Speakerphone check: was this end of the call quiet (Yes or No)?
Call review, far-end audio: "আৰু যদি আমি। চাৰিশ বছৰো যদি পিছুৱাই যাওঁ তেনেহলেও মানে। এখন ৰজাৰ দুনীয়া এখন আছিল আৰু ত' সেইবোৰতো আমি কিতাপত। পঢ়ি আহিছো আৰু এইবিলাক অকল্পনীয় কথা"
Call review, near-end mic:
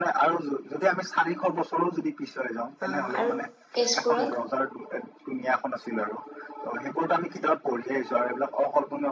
No